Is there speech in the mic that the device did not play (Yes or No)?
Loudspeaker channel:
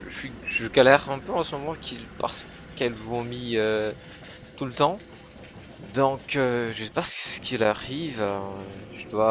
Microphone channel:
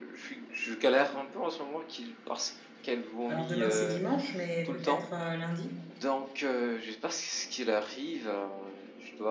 Yes